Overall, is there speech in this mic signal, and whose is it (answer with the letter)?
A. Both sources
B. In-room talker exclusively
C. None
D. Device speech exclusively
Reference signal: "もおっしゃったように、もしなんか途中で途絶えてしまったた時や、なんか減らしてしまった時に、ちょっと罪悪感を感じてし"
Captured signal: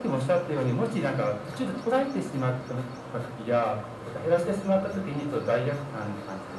D